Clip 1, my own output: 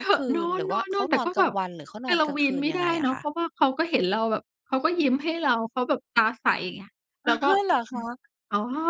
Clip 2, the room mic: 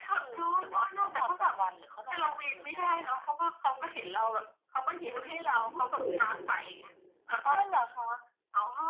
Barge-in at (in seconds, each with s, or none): 5.0 s